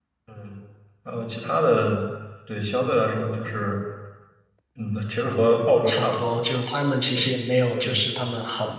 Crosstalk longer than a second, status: none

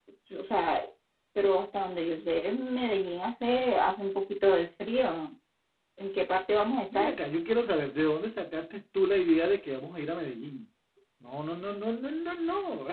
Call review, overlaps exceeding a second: none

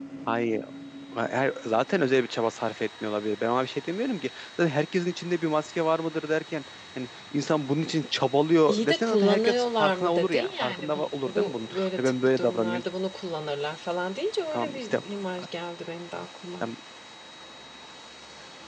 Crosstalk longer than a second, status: present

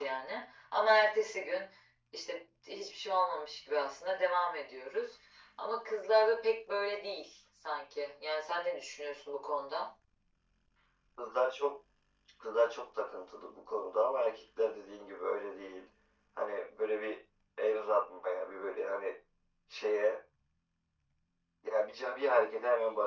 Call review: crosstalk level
none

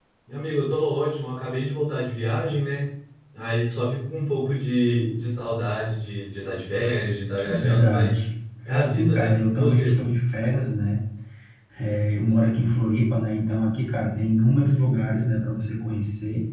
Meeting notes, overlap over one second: present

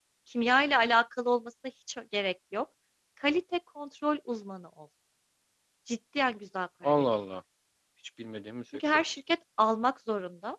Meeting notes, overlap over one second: none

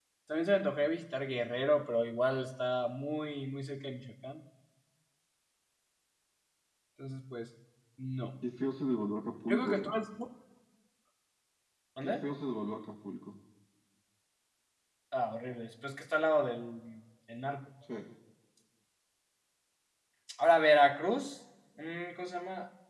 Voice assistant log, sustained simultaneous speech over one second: none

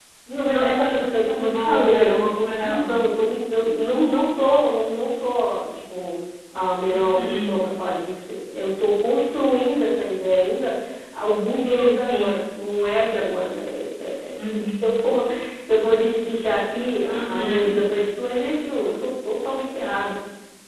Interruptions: present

